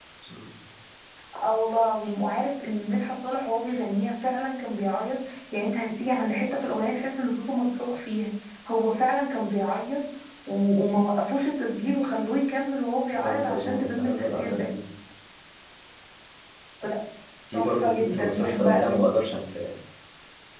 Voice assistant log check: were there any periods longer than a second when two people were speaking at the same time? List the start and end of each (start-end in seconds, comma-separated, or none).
13.1-14.7, 17.5-19.0